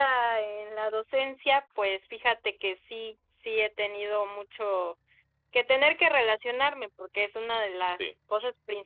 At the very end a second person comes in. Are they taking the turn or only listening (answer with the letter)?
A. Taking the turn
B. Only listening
B